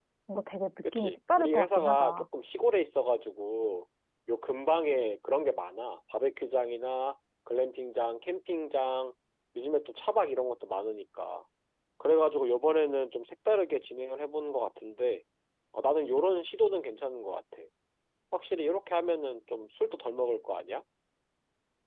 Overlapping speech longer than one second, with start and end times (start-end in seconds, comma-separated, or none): 0.9-2.2